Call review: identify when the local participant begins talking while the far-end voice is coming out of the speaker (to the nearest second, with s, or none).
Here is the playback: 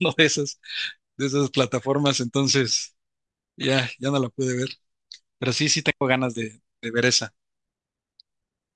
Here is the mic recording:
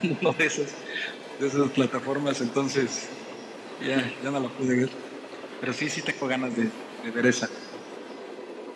none